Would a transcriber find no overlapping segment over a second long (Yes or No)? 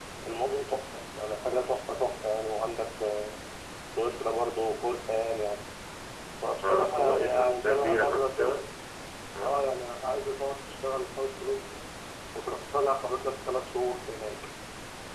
No